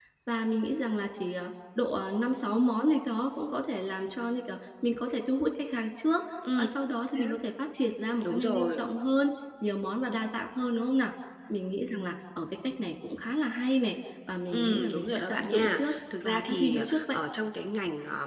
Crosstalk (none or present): present